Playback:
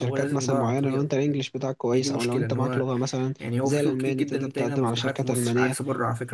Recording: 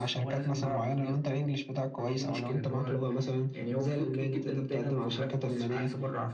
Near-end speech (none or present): none